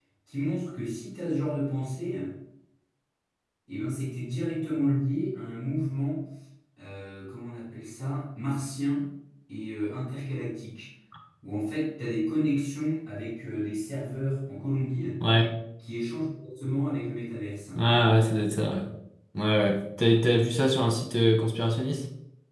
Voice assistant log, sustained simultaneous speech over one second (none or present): none